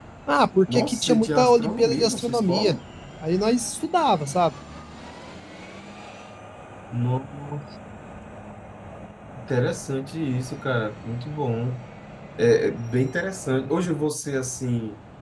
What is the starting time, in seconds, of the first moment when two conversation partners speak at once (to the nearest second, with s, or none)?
1 s